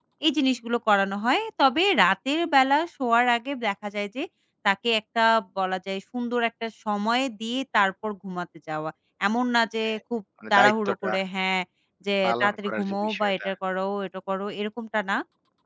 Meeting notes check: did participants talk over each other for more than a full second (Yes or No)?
Yes